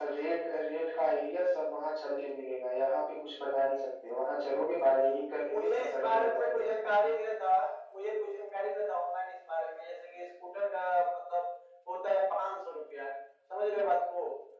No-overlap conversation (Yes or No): No